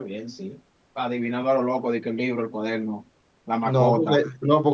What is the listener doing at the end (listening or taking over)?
taking over